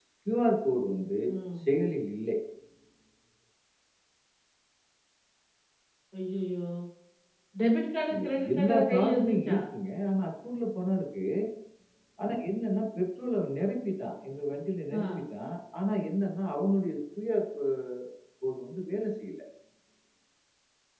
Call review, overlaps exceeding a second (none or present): present